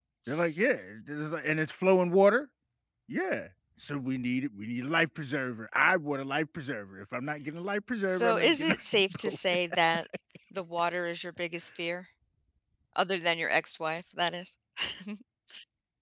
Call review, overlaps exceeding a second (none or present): present